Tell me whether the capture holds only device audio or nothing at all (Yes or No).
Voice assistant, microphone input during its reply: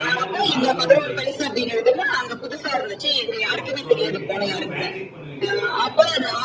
No